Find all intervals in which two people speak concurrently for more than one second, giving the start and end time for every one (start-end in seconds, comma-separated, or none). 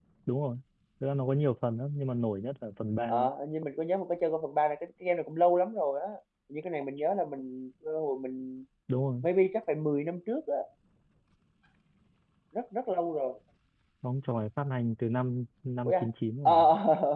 none